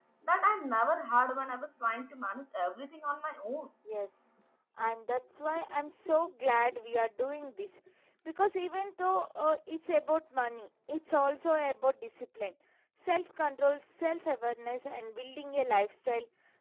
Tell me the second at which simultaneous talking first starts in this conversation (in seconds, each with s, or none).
none